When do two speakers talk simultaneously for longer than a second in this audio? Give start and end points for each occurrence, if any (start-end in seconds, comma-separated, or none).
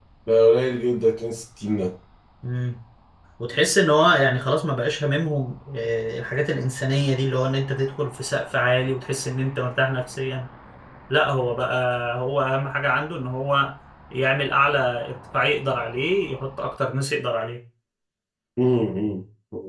none